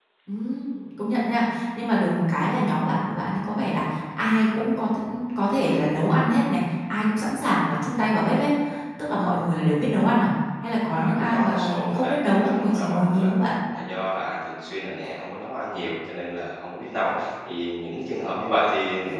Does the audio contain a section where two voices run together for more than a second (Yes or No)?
Yes